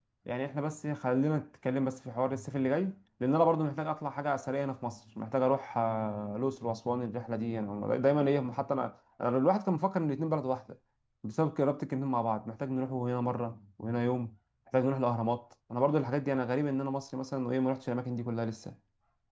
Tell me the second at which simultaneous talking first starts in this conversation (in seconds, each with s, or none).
none